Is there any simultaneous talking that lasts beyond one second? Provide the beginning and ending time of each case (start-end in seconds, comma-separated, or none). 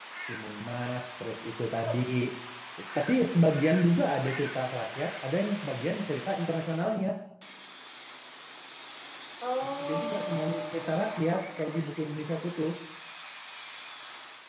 9.8-11.6